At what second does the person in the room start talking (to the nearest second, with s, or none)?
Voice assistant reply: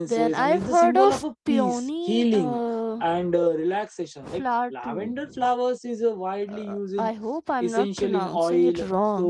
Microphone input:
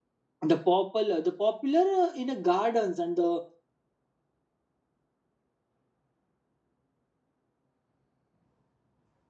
1 s